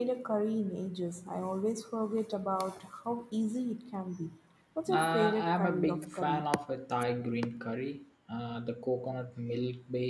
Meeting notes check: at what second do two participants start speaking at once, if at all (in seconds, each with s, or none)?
4.9 s